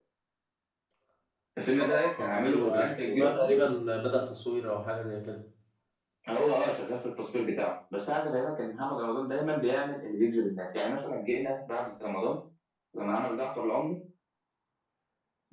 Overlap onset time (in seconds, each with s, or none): 1.7 s